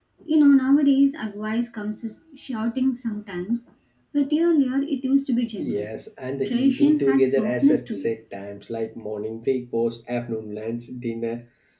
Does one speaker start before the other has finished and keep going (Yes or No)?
Yes